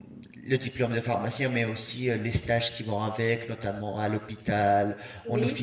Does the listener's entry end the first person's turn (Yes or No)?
No